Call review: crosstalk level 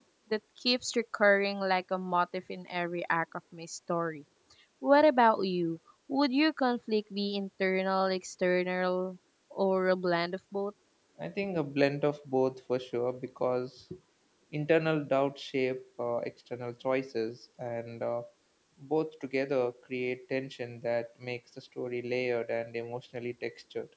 none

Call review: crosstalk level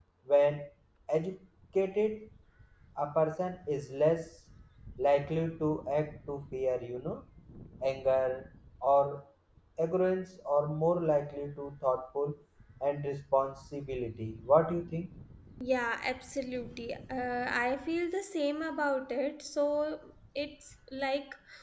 none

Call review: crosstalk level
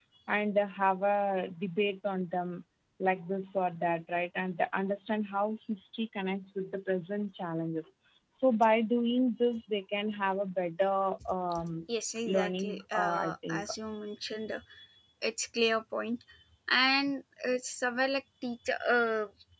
present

